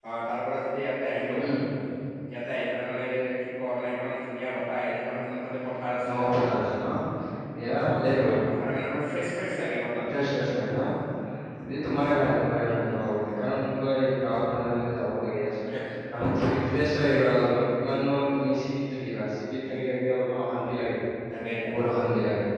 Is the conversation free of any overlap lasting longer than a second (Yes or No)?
Yes